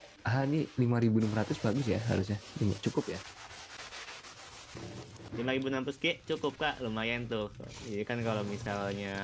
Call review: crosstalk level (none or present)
none